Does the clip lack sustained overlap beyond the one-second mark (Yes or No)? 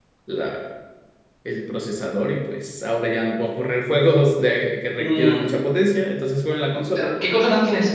Yes